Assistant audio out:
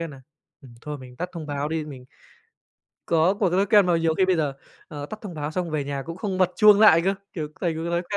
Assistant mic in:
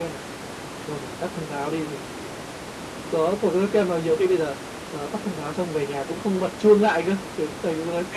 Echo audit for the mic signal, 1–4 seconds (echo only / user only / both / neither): echo only